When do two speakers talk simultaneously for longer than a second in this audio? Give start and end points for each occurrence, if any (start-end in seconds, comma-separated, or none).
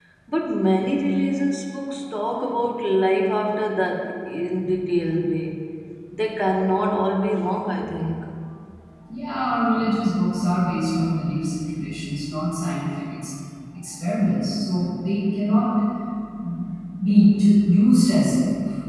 none